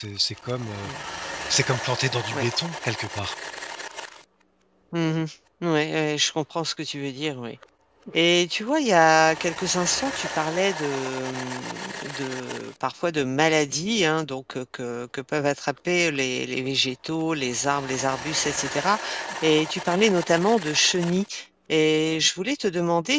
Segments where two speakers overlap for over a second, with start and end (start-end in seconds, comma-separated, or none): none